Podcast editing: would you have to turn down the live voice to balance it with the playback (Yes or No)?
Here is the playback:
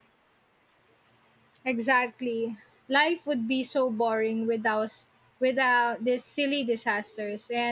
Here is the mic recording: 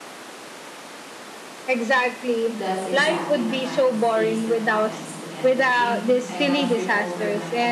No